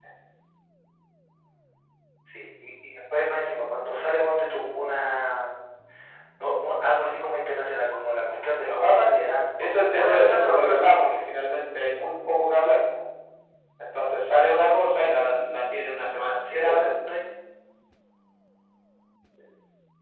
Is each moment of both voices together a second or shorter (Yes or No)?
No